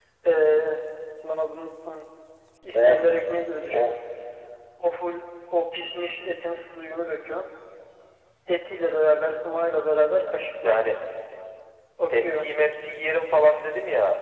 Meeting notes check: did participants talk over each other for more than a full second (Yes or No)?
No